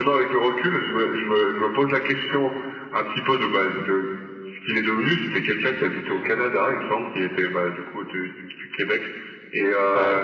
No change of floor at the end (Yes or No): Yes